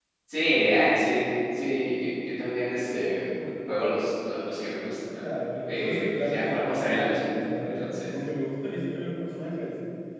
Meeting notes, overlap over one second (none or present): present